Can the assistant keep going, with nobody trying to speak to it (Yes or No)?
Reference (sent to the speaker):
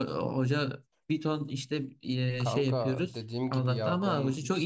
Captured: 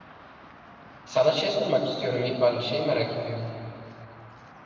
No